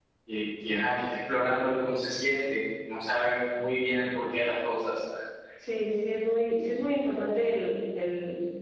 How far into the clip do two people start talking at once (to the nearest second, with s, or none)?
none